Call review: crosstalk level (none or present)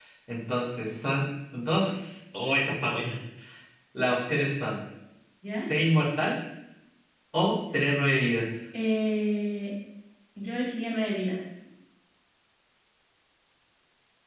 none